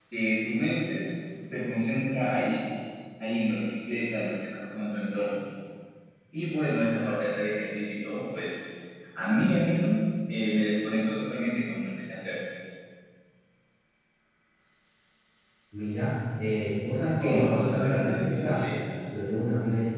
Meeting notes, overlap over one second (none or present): present